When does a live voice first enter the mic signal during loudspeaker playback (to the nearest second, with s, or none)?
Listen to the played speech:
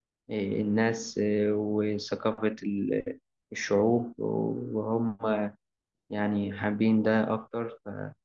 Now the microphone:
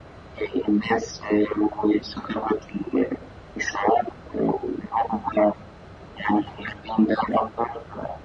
none